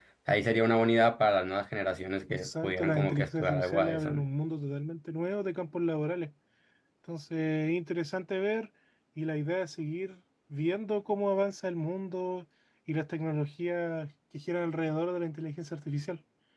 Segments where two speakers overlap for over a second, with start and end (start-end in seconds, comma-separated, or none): 2.3-4.2